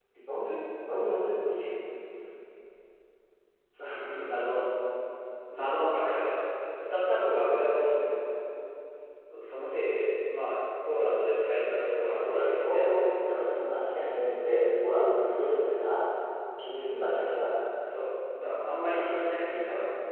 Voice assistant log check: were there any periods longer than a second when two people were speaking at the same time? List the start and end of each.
12.0-13.2

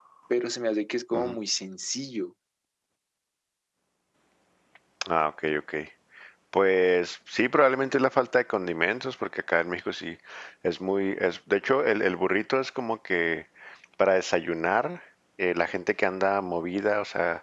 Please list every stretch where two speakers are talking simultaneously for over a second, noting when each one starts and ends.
none

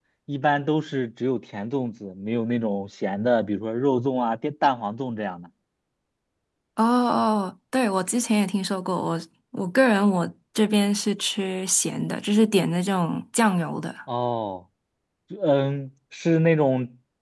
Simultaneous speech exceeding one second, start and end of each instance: none

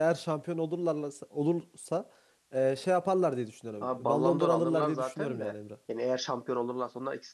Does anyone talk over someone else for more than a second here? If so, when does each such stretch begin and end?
3.8-5.5

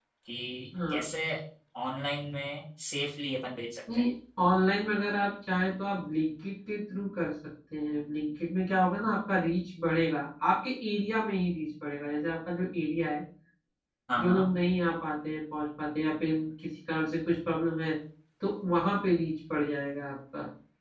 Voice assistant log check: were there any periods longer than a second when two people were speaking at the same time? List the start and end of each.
none

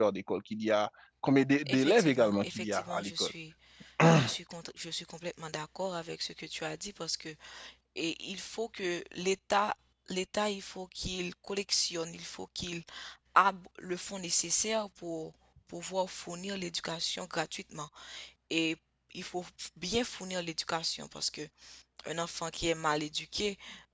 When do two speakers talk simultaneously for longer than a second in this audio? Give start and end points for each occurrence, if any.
1.7-3.3

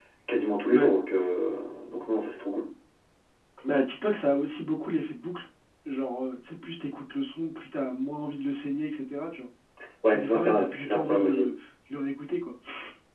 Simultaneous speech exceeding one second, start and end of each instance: 10.1-11.5

